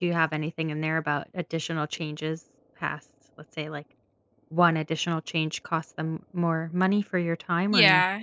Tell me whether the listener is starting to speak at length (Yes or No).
Yes